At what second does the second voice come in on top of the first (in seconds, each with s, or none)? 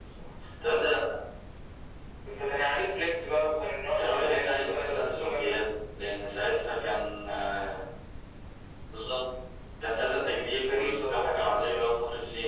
4.0 s